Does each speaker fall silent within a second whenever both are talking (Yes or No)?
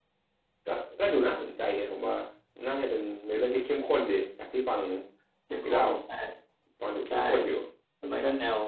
Yes